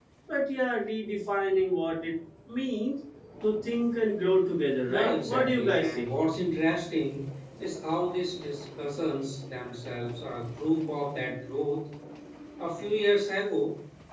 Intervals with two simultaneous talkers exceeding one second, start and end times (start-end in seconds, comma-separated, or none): 4.8-6.1